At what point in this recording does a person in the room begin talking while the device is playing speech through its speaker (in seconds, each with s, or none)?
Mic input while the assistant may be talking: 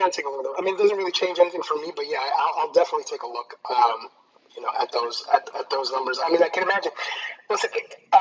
none